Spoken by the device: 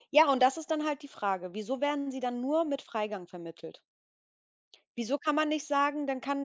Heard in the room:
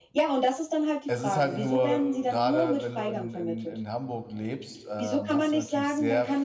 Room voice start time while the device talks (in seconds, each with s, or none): 1.1 s